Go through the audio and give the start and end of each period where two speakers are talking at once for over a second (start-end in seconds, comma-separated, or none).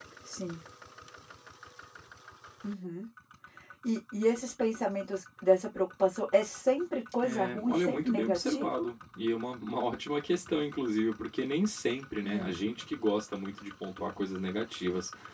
7.2-8.8